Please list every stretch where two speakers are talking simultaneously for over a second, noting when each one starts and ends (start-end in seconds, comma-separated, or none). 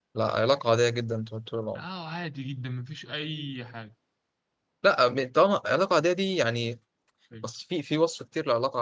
none